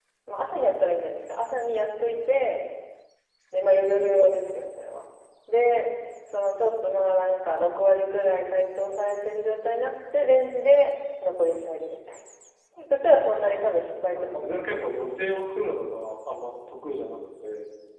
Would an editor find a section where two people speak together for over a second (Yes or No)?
Yes